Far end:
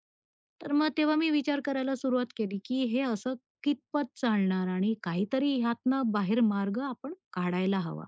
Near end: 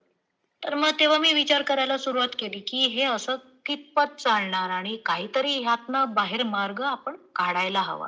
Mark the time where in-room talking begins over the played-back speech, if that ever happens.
none

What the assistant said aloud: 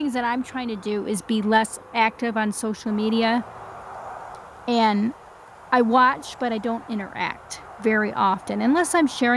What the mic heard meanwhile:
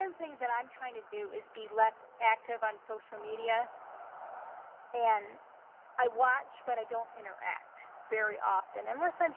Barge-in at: none

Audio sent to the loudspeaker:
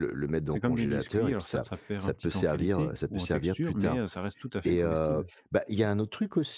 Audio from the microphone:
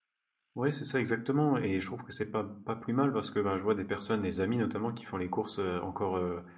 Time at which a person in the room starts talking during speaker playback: 0.5 s

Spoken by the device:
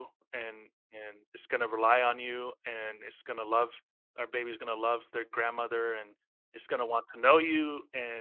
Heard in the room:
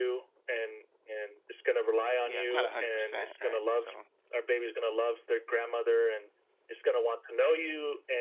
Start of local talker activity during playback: 2.2 s

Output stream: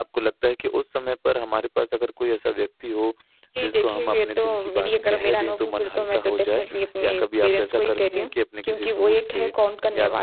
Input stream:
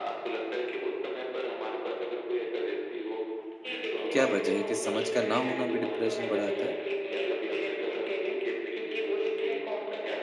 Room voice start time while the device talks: 4.1 s

